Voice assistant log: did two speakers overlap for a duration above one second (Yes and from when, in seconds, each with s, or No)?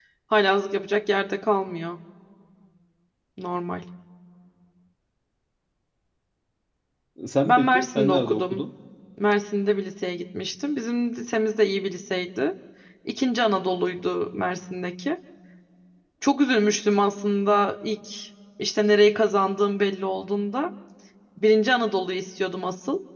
Yes, from 7.5 s